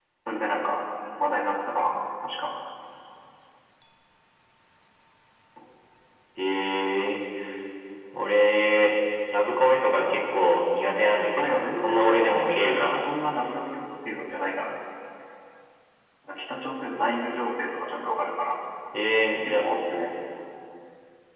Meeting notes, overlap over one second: present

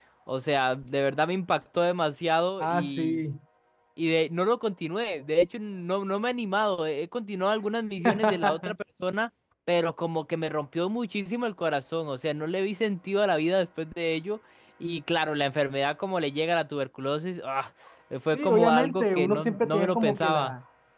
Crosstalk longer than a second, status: present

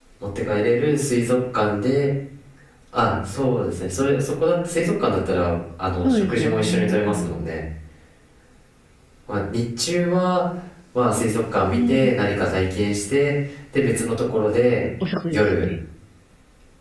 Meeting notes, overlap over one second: present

